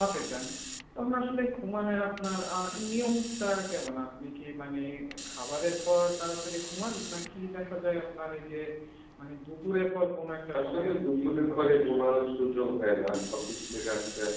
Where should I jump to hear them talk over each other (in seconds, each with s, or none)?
10.5 s